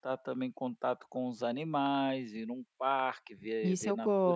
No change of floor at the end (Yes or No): No